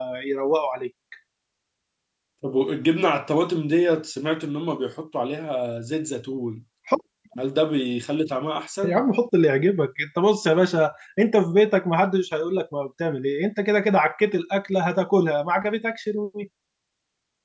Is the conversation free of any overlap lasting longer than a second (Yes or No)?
Yes